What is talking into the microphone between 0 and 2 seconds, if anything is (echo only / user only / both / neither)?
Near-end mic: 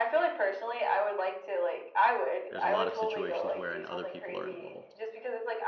echo only